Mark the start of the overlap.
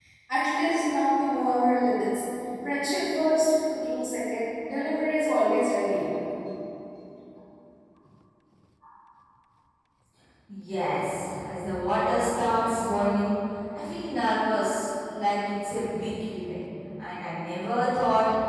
none

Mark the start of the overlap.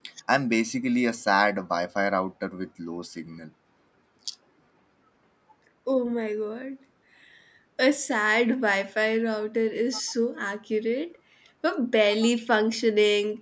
none

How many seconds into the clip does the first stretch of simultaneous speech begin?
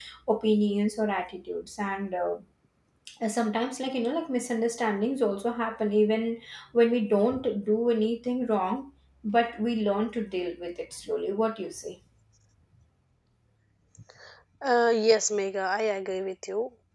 none

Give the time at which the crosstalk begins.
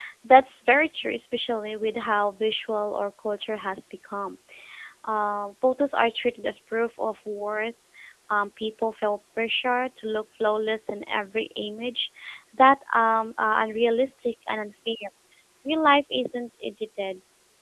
none

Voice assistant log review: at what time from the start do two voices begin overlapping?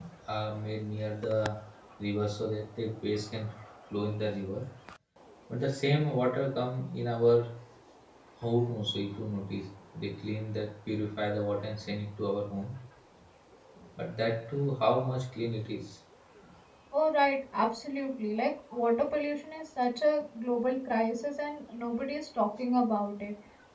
none

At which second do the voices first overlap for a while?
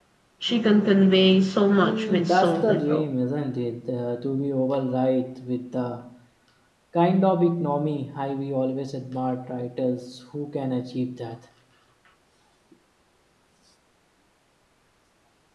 2 s

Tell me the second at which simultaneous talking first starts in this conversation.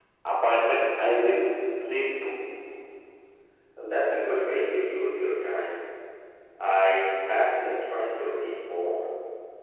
none

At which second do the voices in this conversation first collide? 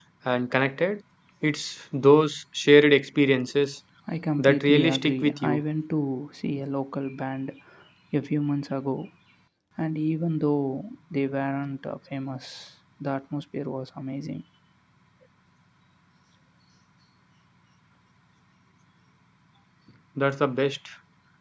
4 s

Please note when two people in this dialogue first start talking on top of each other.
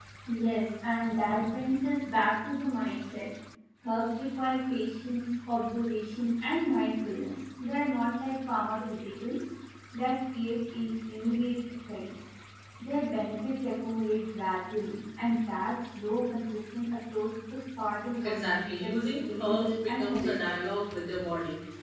18 s

